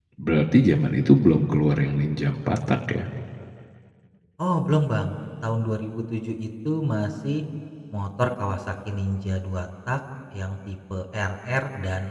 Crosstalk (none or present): none